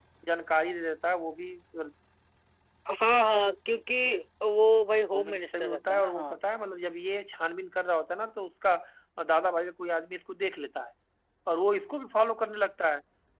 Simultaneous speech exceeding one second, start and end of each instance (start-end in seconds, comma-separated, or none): 5.1-6.4